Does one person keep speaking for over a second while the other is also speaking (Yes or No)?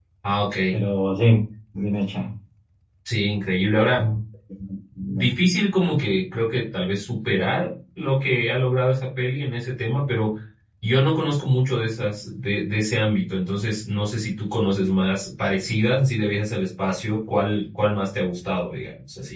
No